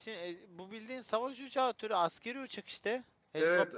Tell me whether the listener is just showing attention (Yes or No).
No